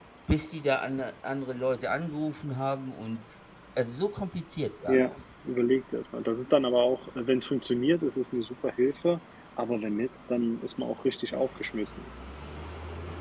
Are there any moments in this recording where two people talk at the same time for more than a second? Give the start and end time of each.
none

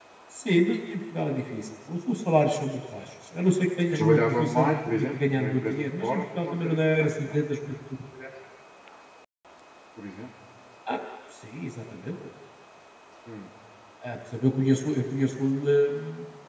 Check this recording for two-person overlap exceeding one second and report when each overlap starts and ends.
4.0-7.4

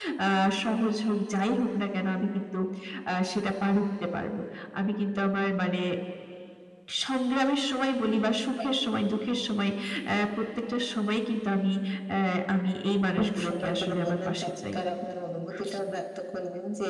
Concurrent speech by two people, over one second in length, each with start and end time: 13.2-14.8

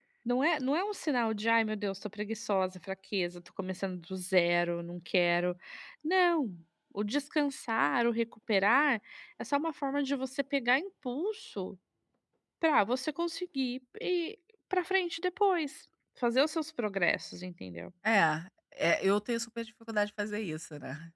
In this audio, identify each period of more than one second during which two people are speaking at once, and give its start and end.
none

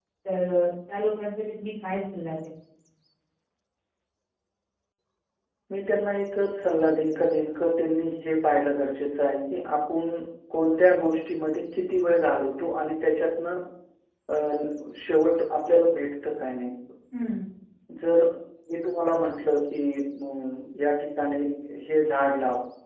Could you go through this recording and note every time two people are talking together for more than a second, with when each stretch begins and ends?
none

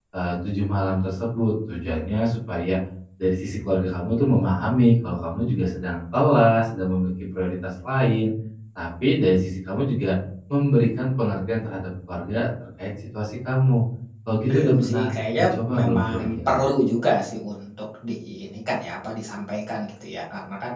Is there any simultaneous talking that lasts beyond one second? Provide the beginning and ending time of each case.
14.5-16.6

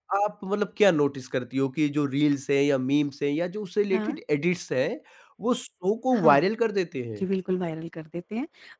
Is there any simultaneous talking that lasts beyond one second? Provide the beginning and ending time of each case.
none

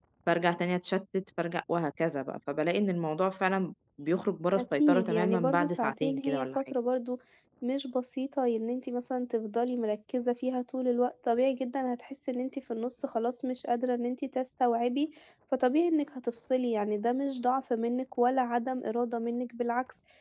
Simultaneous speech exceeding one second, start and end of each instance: 4.6-6.6

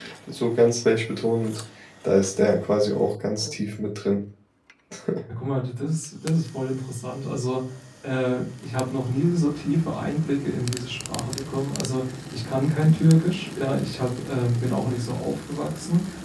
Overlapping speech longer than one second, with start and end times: none

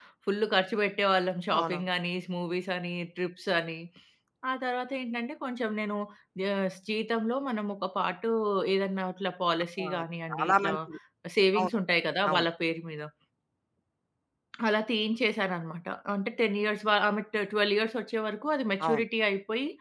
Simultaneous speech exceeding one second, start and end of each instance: none

